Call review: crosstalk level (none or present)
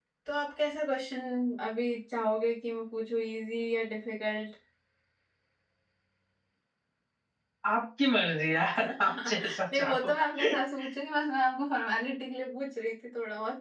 present